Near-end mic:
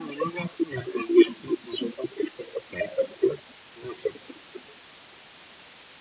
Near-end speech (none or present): none